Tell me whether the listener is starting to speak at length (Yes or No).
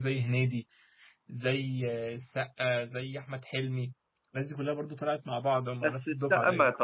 Yes